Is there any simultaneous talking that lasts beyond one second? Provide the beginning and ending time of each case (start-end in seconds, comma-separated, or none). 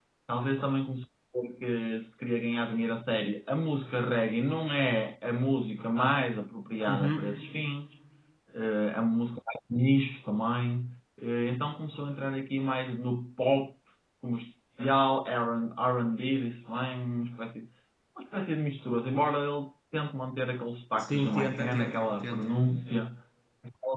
21.0-22.5